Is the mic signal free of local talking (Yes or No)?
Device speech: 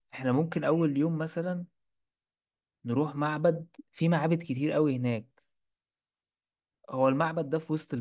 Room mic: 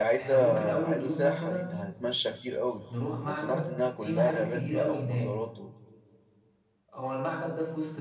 No